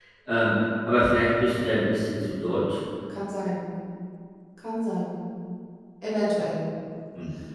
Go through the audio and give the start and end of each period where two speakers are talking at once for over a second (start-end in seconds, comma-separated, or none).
none